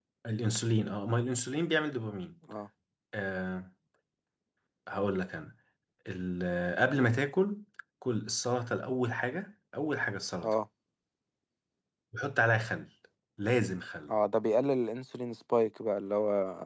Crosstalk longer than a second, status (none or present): none